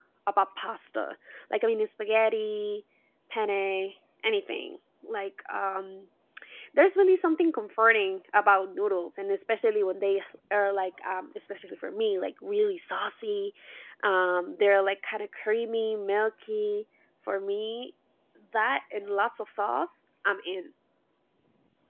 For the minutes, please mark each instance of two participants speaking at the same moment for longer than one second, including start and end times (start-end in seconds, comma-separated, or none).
none